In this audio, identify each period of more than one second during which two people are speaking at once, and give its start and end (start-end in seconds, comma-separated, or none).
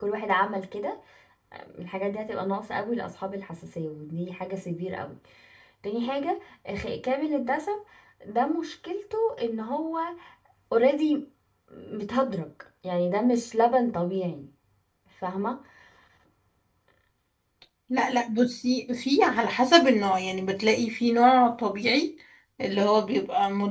none